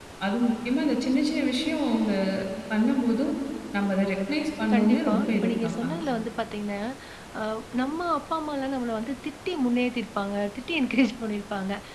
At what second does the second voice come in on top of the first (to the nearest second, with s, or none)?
5 s